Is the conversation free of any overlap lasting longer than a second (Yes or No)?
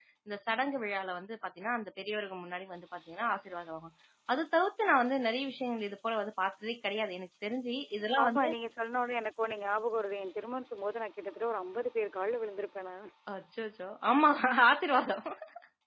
Yes